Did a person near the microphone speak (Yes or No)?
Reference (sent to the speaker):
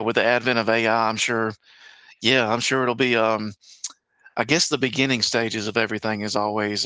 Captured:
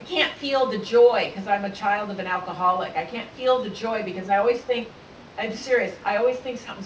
Yes